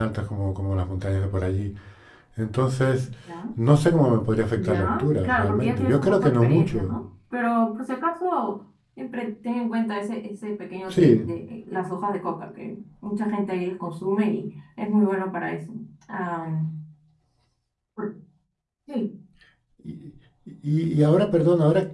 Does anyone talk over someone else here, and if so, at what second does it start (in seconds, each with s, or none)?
4.5 s